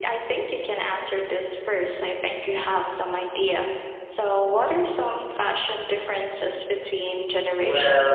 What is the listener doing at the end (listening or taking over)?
taking over